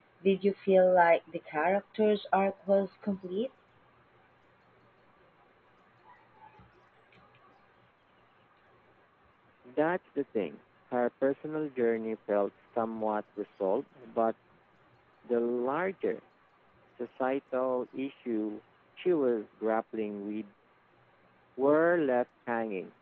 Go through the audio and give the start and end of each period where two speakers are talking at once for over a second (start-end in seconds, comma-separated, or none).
none